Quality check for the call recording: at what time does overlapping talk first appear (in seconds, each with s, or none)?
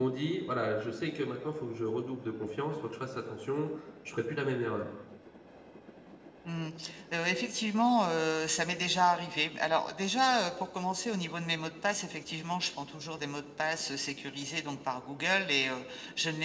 none